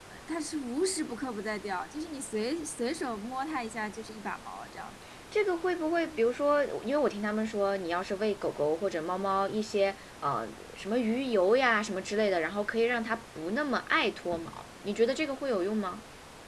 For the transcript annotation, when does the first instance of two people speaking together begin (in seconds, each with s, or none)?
none